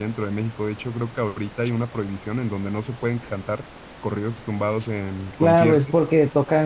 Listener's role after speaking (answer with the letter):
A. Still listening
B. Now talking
B